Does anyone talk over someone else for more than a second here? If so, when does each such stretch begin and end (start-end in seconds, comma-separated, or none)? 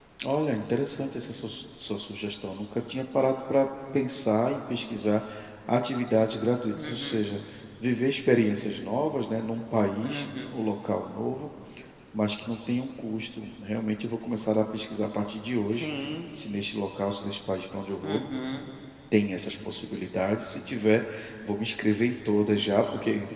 none